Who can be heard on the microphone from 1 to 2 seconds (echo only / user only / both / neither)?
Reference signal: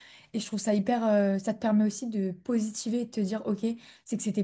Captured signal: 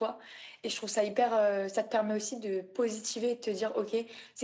echo only